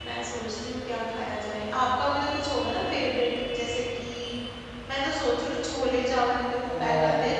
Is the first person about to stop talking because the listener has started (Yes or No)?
No